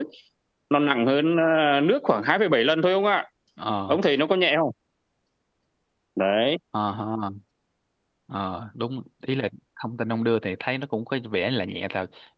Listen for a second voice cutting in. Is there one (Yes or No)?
No